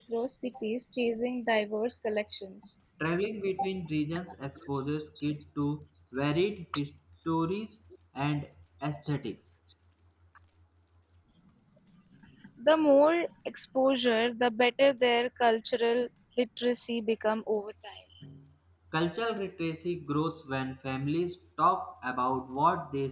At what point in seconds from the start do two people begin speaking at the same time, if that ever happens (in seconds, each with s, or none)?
none